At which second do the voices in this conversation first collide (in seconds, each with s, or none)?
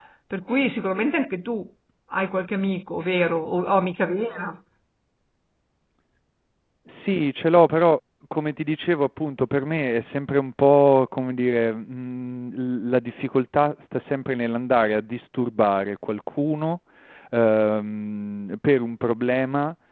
none